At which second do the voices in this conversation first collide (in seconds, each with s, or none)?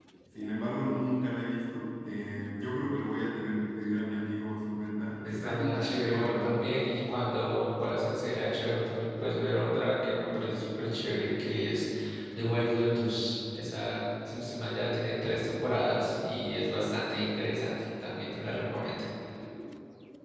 5.2 s